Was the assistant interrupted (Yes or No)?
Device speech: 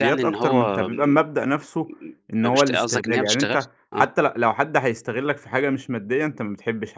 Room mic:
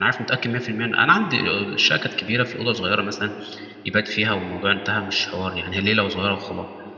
Yes